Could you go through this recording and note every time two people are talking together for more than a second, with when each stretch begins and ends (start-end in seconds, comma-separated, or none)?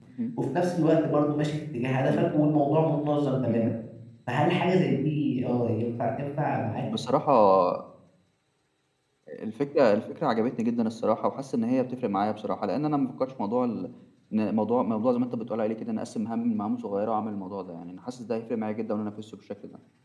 none